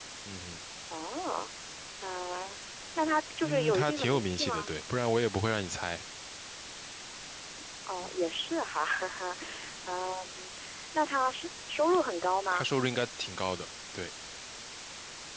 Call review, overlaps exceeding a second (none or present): present